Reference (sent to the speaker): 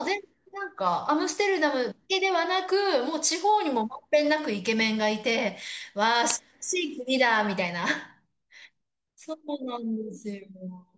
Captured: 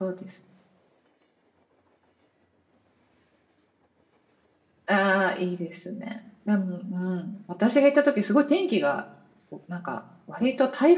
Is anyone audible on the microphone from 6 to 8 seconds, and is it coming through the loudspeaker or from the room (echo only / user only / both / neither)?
user only